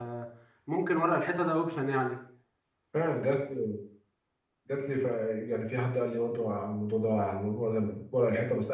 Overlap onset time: none

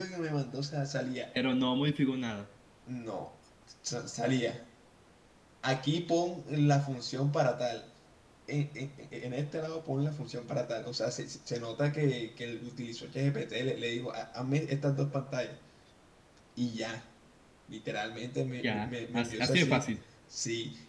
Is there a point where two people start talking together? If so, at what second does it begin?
18.6 s

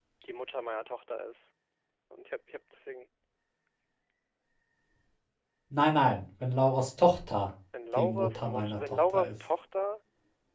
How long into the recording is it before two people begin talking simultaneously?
8.0 s

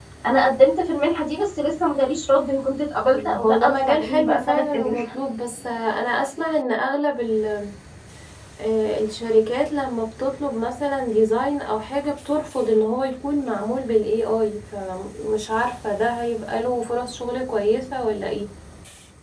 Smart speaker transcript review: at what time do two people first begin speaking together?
3.4 s

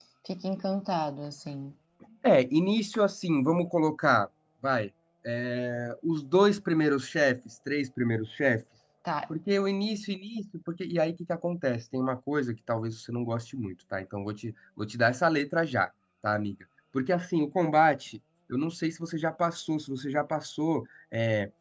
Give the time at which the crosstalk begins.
none

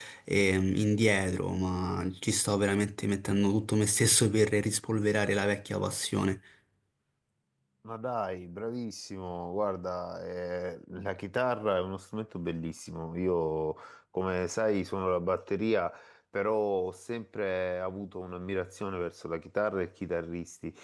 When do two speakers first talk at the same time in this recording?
none

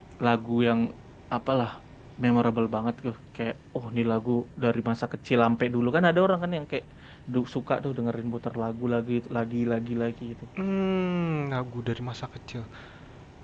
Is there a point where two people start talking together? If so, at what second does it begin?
none

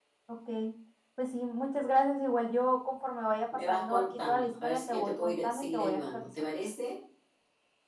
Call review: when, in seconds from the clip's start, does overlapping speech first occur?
3.5 s

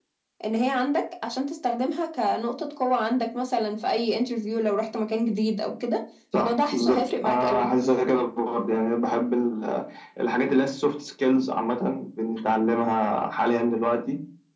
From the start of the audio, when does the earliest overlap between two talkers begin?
6.3 s

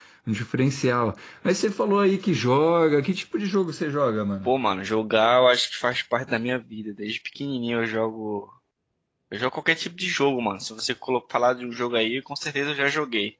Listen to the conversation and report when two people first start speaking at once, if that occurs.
none

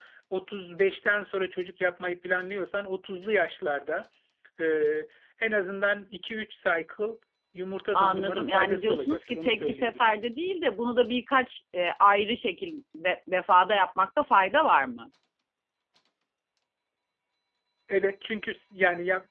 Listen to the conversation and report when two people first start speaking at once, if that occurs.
8.0 s

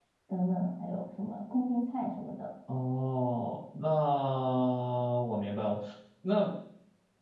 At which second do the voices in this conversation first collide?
none

